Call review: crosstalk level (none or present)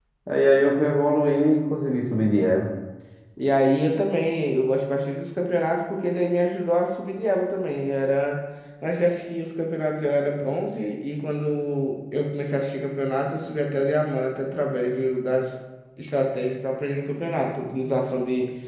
none